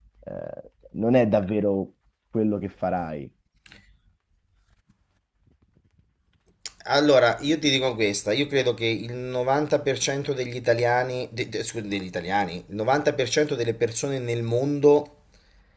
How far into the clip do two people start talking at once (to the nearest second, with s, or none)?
none